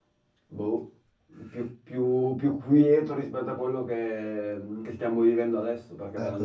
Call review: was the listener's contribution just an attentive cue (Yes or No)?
No